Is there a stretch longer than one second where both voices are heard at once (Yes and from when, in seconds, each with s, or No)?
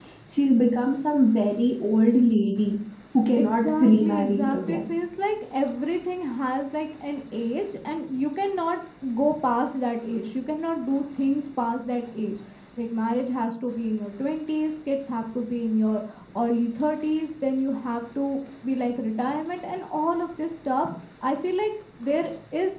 Yes, from 3.4 s